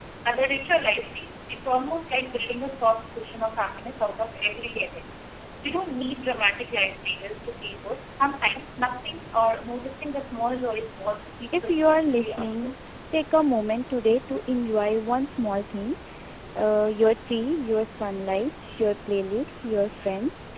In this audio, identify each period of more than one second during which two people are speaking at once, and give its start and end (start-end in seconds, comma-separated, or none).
11.5-12.7